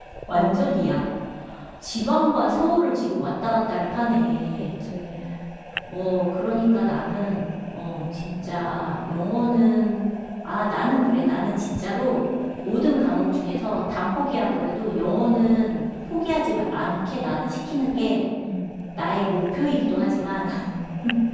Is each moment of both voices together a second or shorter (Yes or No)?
Yes